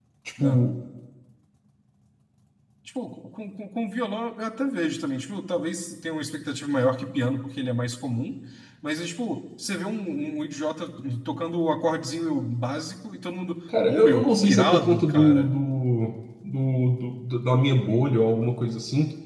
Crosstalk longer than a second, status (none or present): present